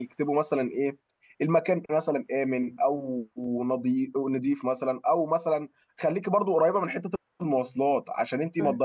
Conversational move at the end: listening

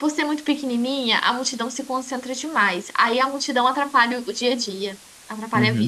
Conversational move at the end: taking over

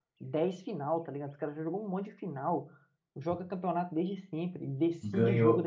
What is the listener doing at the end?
taking over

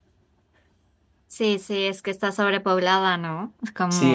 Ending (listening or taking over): taking over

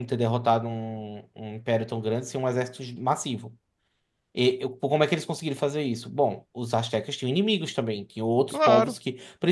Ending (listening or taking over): listening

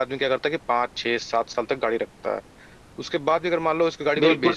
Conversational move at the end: taking over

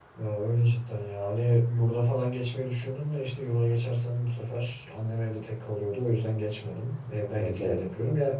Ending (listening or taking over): listening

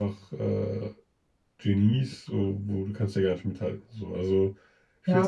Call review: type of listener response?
taking over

